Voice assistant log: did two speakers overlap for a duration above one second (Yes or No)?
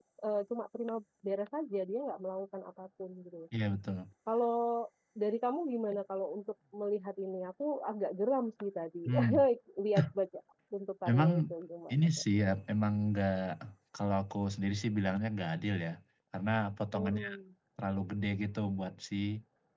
No